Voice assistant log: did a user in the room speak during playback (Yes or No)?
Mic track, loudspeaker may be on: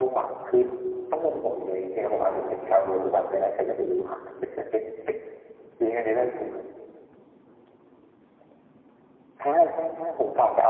No